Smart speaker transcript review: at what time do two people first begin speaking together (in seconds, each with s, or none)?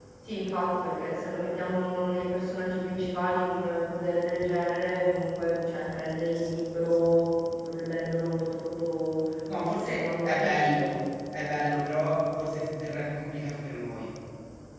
9.5 s